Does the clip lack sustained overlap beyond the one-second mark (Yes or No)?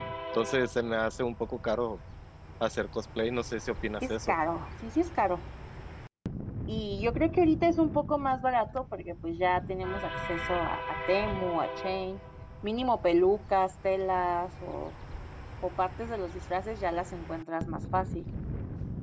Yes